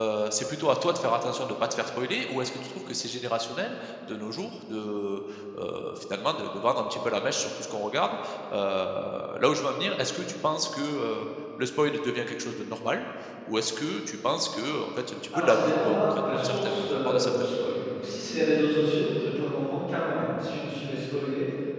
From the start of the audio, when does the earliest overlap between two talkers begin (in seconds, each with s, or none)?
15.3 s